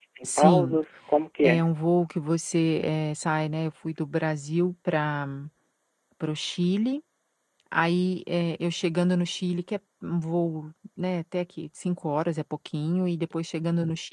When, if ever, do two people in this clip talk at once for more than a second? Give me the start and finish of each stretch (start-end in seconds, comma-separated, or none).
none